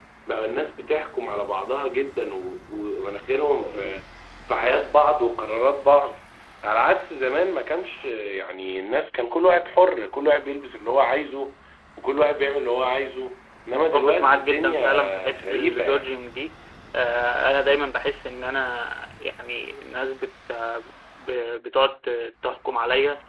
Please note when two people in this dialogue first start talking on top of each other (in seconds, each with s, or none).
13.7 s